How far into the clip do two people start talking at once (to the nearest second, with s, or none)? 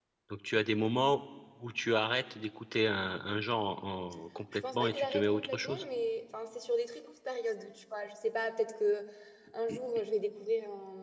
5 s